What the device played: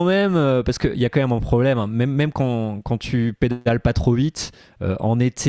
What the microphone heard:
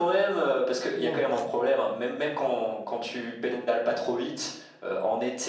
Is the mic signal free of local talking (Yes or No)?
No